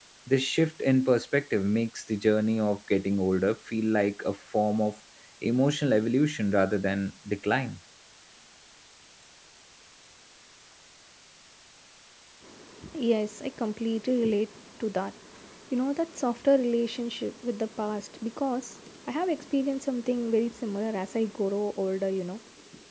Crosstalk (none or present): none